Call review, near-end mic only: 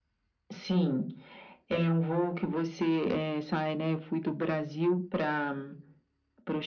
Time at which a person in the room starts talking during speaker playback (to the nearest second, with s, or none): none